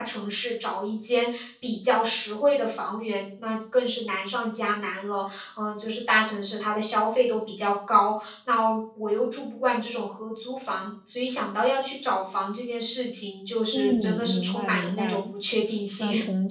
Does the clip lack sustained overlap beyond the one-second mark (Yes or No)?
No